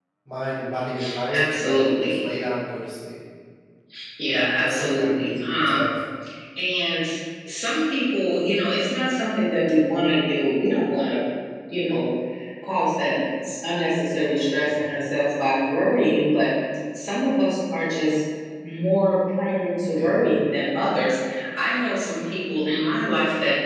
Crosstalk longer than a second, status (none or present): present